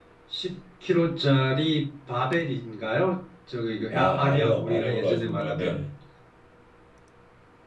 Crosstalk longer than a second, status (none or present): present